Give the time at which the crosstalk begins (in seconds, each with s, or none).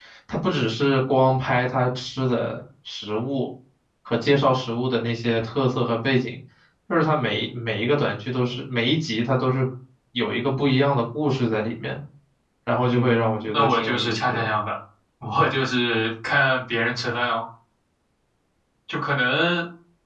12.9 s